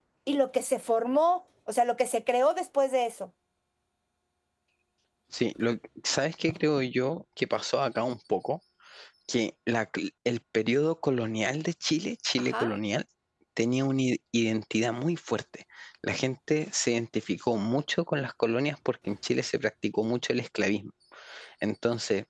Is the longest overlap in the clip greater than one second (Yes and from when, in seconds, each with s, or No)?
No